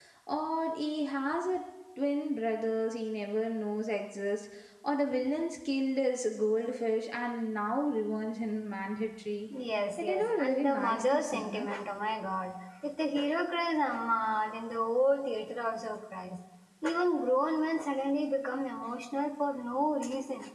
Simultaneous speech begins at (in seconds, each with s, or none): 10.0 s